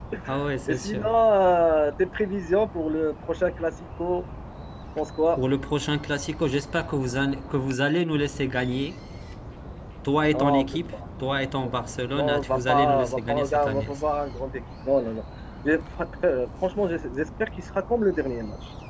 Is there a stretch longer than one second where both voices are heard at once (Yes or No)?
Yes